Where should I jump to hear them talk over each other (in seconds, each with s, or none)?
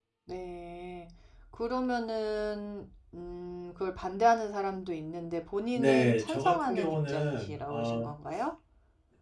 5.8 s